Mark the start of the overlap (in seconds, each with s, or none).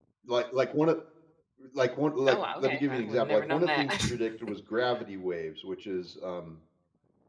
2.3 s